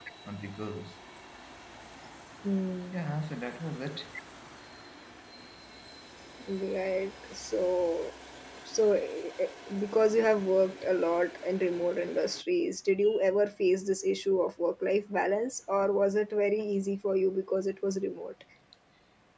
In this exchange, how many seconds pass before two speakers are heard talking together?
none

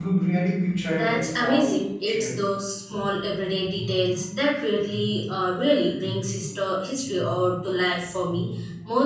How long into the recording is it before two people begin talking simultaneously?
1 s

